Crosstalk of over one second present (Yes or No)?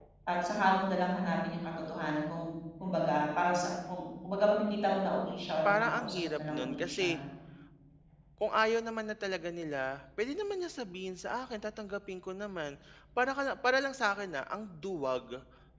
Yes